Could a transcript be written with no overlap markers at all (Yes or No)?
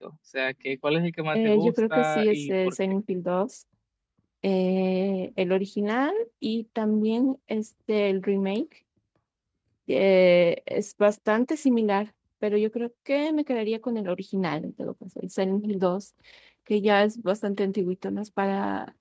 No